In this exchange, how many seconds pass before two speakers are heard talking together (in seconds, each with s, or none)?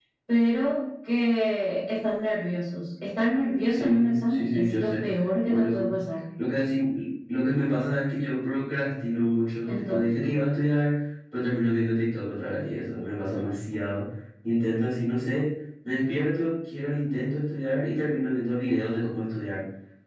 3.7 s